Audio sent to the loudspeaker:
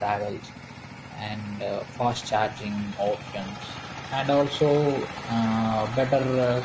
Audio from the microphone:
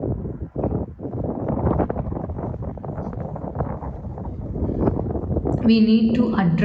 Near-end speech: present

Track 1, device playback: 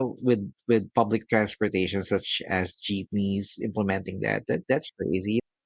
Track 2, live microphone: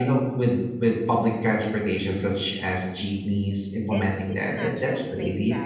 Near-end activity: present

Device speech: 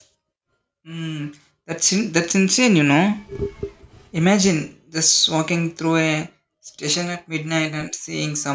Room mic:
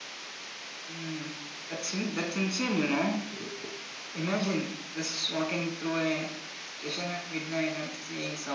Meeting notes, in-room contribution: none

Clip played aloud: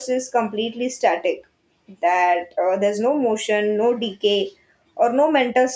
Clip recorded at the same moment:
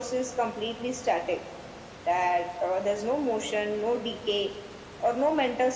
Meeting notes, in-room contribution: none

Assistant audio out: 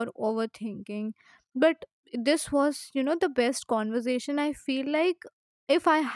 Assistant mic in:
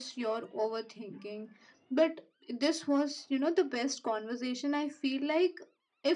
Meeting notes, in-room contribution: none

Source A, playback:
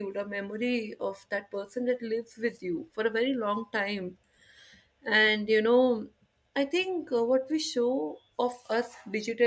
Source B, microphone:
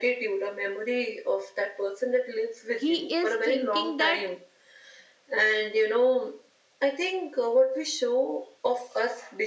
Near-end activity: present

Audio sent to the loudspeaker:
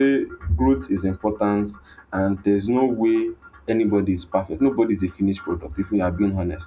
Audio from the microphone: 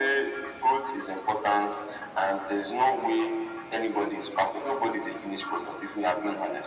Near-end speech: none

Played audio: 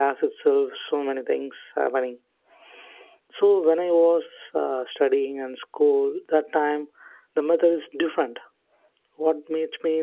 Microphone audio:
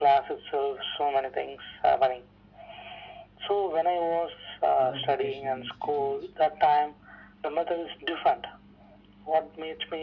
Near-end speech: present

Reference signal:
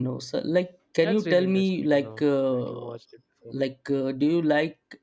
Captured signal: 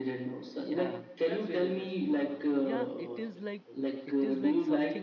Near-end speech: present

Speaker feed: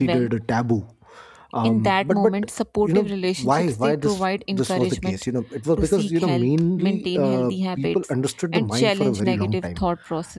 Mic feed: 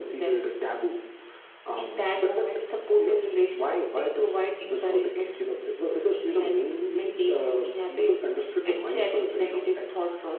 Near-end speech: none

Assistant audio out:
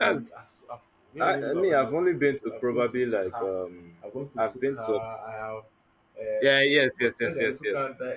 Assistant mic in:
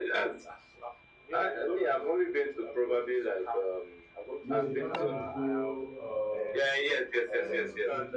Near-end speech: present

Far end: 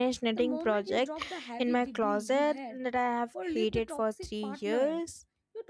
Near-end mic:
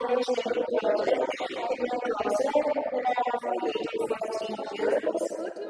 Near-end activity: present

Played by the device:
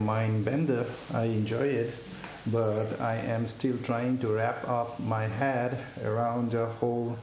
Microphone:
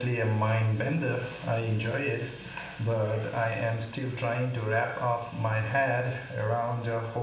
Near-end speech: none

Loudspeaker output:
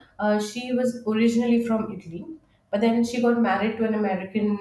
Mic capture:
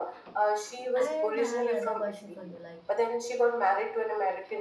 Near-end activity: present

